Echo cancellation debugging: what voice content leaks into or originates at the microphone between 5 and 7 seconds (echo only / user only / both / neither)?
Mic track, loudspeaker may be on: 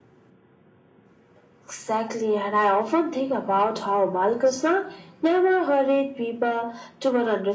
echo only